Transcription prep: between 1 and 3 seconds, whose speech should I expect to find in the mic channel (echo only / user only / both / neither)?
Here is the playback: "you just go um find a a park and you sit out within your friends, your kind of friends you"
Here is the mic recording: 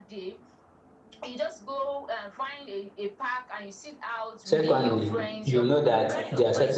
echo only